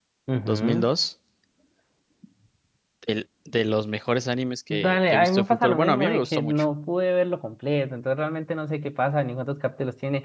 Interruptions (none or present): present